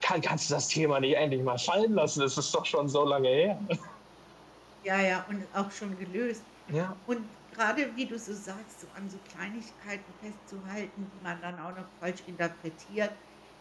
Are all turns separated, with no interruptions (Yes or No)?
Yes